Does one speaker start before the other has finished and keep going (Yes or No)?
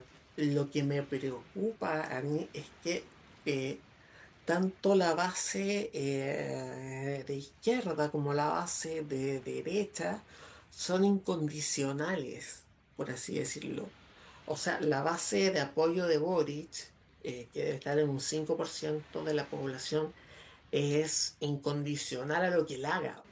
No